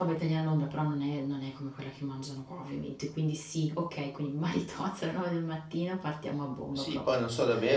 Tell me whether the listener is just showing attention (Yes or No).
No